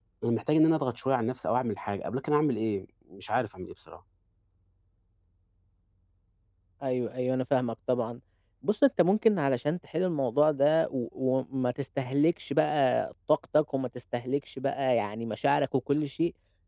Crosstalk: none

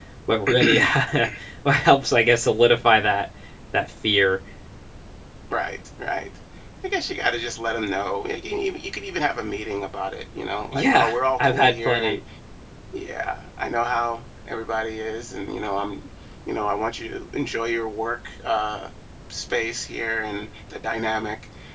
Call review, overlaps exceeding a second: present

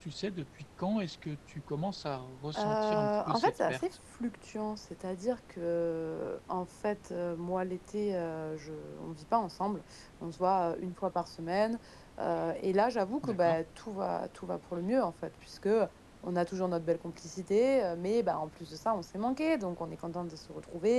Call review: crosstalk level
present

